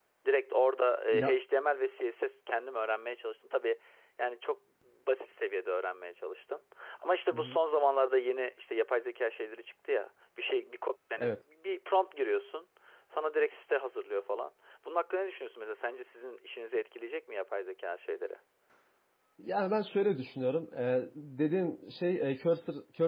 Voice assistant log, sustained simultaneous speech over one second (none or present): none